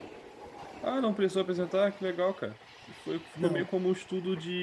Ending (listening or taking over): listening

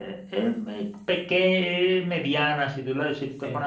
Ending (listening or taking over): listening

